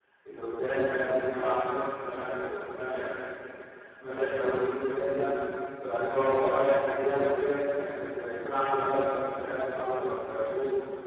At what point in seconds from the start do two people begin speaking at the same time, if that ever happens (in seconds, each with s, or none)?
none